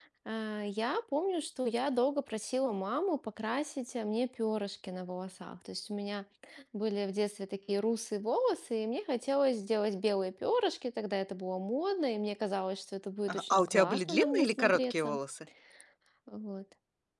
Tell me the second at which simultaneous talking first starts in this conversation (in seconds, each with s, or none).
13.3 s